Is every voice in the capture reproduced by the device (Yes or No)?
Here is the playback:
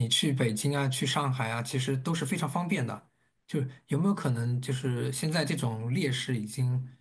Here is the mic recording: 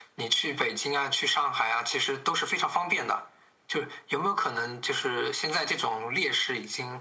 Yes